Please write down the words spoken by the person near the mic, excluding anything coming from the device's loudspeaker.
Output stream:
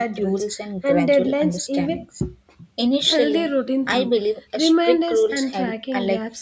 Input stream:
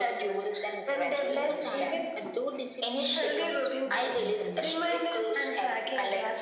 Over time, uh, though discipline becomes more internal,

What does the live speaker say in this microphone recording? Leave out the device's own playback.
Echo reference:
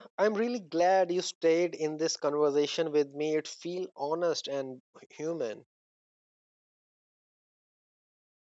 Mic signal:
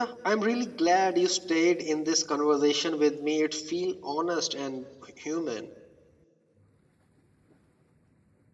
none

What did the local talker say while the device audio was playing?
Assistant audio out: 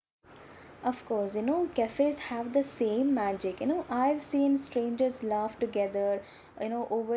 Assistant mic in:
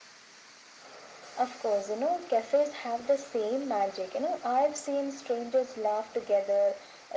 none

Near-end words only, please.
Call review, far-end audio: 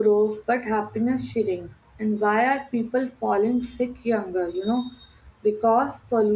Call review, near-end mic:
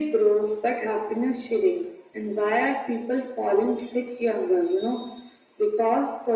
none

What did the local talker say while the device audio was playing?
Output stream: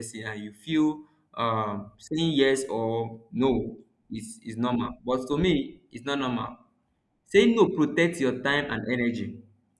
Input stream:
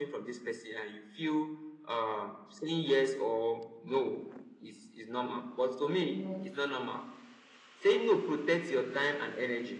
yes

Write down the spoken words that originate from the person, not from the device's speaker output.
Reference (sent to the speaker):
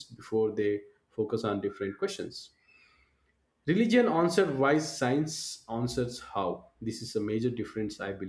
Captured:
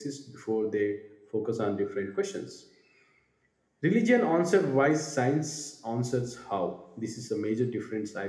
none

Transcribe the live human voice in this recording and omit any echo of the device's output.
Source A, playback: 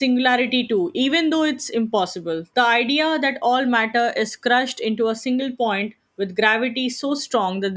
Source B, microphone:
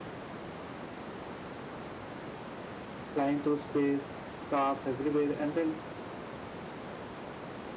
flying through space stars everywhere and then

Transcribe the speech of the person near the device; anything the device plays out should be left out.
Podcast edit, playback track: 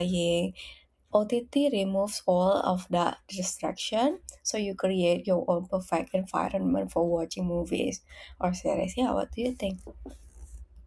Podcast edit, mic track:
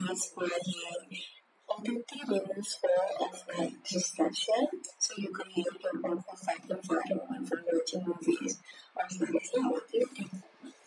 none

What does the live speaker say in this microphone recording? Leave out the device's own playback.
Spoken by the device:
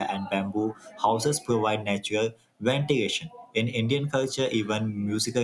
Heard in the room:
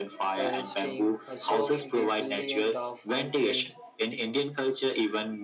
resting, uh, showing the brilliant of ancient

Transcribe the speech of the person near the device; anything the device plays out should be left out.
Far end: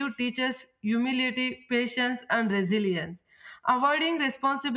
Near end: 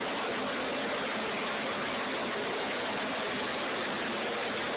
none

